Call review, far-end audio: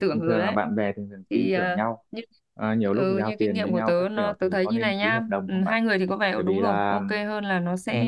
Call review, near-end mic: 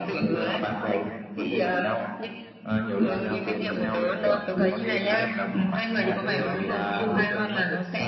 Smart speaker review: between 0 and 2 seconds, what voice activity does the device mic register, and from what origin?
both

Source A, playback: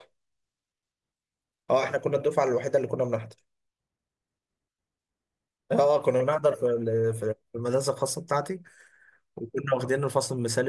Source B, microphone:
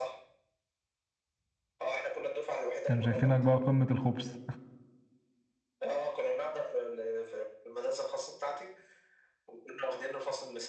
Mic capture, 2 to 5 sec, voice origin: both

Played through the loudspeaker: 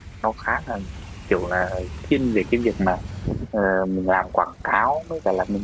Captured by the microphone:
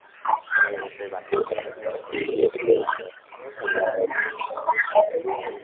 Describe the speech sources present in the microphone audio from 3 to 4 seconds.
both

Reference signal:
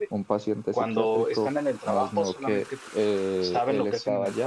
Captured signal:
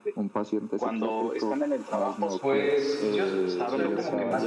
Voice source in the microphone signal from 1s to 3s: both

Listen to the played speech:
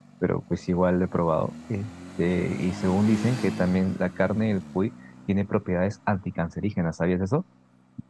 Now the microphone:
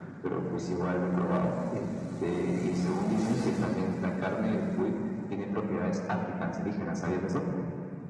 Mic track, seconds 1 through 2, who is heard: echo only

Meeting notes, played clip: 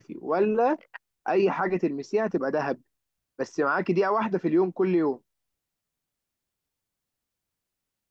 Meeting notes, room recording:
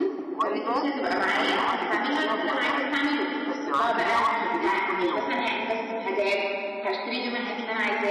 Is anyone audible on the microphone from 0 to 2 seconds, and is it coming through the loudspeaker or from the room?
both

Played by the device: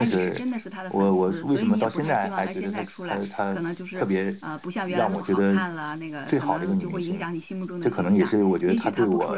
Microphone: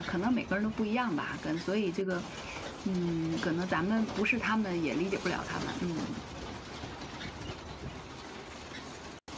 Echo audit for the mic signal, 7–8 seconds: neither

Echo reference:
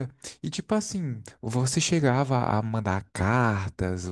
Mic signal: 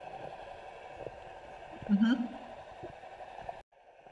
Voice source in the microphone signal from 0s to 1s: neither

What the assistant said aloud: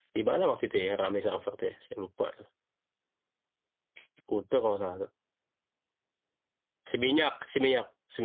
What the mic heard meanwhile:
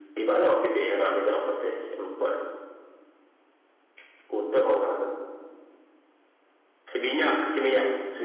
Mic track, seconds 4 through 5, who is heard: echo only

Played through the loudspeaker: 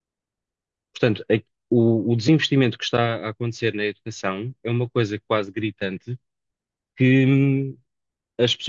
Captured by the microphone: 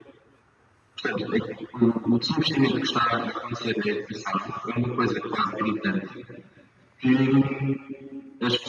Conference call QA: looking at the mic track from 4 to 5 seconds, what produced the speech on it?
echo only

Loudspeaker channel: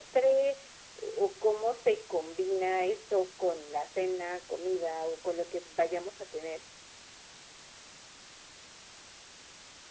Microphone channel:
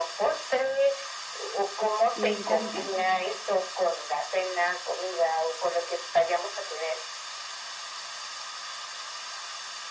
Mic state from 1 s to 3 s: both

